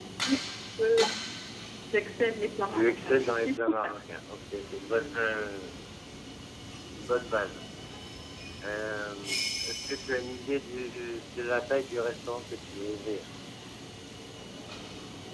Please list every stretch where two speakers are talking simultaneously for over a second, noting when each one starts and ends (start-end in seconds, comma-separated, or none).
2.7-4.0